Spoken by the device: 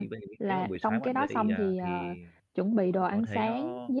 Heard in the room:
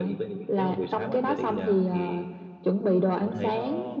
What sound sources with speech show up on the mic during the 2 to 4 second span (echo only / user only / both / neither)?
echo only